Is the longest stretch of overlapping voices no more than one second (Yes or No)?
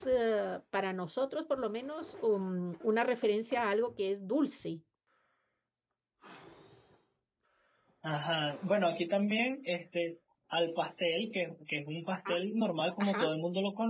Yes